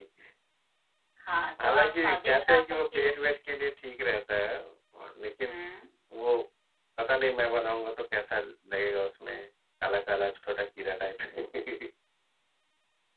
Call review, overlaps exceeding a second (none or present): present